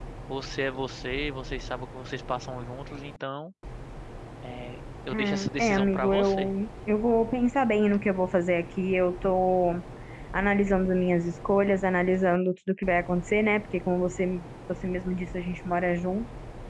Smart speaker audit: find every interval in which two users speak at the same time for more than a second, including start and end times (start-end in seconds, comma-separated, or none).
5.1-6.5